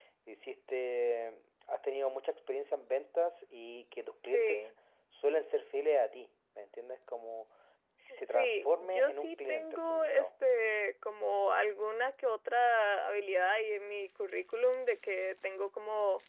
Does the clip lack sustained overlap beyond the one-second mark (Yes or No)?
No